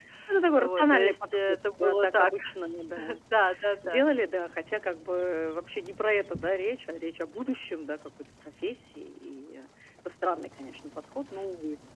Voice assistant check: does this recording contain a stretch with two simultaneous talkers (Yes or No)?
Yes